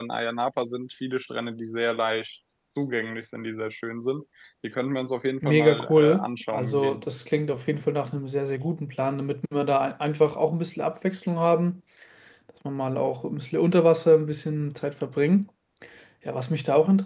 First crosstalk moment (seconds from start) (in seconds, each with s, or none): 5.4 s